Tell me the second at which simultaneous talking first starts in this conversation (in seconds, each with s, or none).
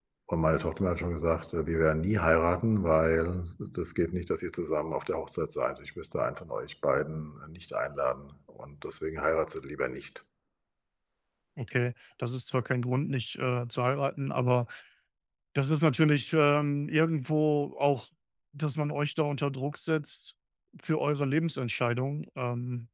none